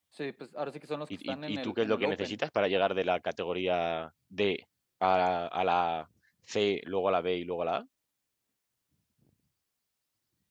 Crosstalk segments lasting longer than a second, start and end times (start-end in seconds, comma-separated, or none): 1.1-2.4